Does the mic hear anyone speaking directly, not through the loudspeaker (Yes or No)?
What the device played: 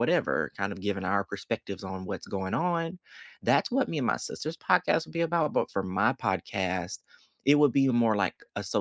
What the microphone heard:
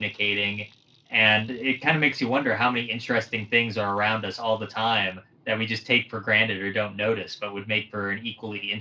Yes